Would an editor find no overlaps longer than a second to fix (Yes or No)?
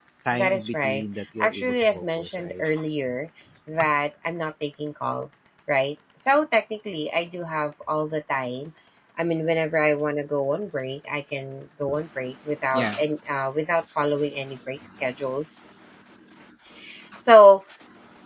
No